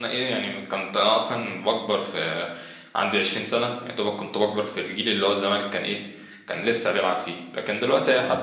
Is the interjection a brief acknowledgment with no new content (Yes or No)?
Yes